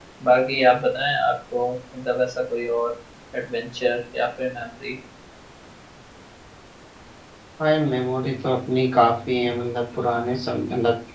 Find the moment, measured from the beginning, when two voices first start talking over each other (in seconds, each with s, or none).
none